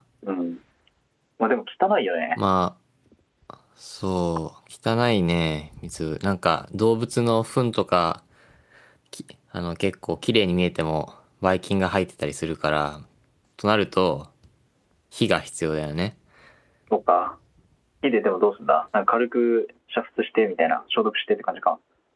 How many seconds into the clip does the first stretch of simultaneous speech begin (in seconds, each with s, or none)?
none